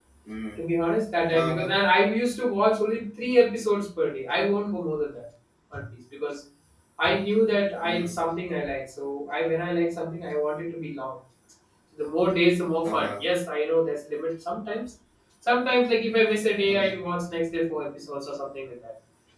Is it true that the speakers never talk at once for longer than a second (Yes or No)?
Yes